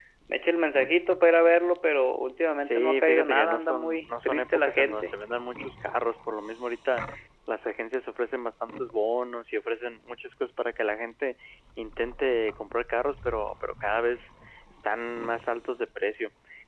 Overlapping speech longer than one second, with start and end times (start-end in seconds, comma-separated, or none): 2.6-5.1